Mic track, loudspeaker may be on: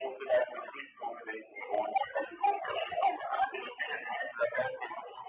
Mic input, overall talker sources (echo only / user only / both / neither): echo only